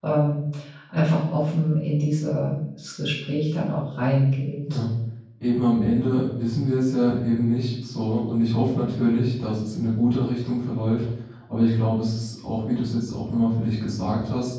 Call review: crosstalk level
none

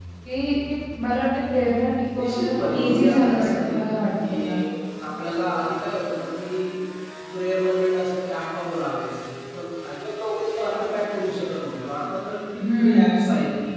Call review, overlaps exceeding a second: present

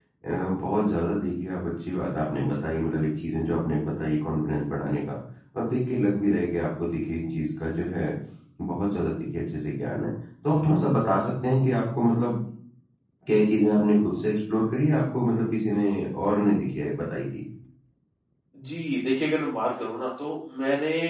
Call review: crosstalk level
none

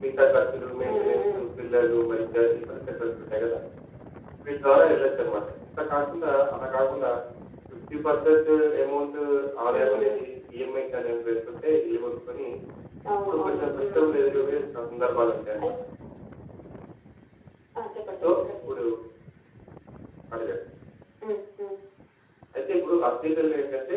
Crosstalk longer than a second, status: present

